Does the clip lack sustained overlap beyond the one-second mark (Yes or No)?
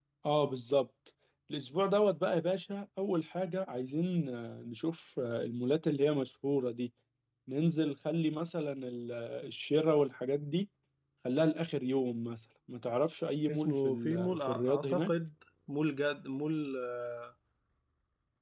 No